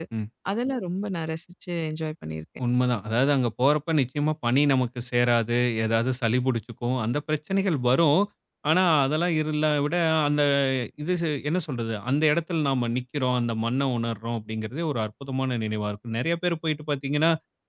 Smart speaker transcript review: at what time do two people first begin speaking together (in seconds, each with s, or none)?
none